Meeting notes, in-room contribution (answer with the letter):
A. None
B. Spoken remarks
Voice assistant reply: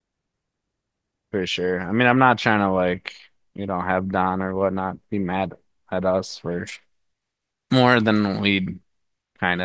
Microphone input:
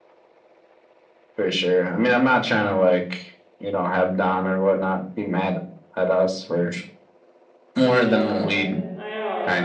B